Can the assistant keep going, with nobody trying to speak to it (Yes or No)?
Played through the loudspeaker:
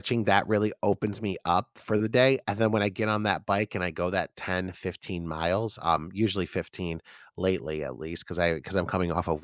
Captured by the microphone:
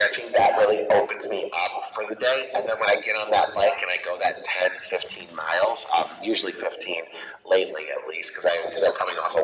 Yes